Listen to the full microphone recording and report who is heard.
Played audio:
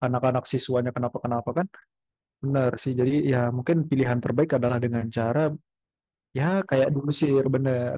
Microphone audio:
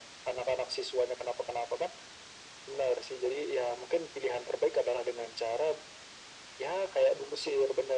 echo only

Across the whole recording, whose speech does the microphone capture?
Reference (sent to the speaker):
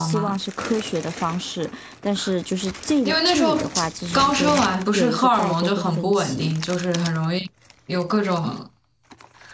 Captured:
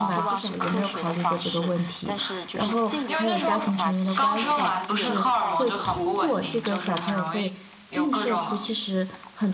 both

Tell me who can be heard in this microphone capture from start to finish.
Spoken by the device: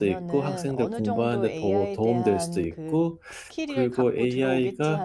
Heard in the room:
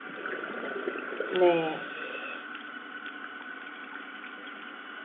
user only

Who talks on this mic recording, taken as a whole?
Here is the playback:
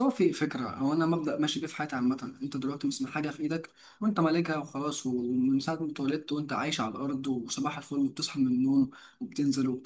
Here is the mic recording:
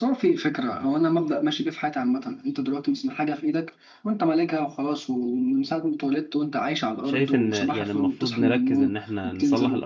both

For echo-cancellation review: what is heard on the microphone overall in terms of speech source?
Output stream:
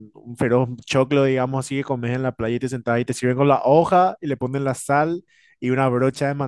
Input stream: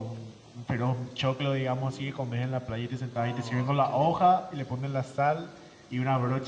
both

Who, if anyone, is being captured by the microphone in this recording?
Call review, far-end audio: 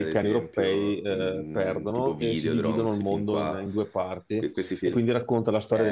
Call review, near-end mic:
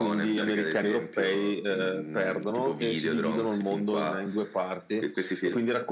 echo only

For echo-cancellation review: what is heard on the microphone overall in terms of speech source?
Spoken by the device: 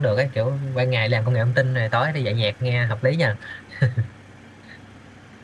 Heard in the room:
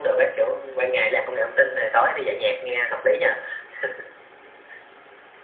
echo only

